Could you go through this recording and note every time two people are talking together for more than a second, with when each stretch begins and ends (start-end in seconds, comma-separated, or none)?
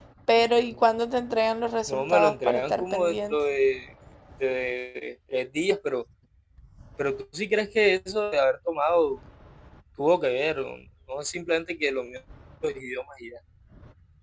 1.9-3.4